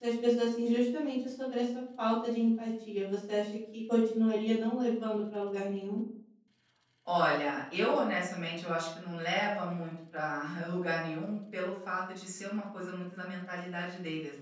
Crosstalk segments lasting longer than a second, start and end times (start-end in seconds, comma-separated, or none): none